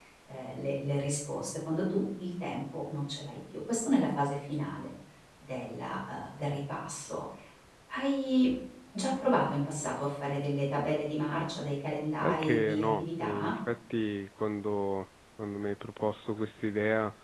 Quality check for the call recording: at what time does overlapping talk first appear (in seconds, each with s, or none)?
12.2 s